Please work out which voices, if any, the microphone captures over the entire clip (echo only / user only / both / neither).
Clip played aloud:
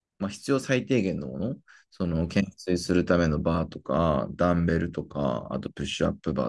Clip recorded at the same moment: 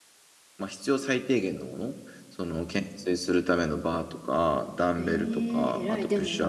both